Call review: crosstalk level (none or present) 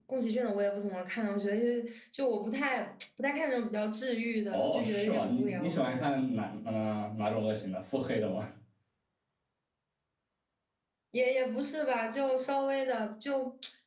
present